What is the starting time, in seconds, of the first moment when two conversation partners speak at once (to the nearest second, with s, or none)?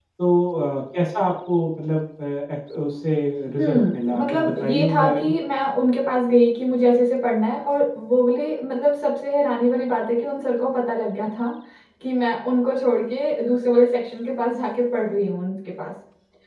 4 s